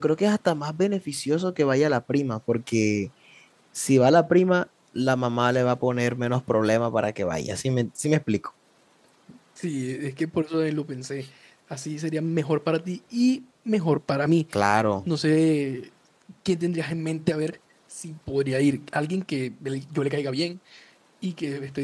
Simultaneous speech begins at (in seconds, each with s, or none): none